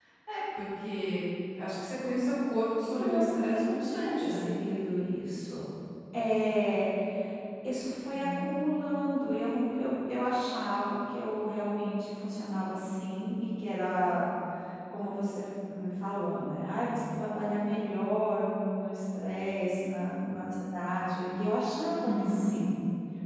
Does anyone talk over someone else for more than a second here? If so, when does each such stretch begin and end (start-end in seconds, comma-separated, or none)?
3.0-4.5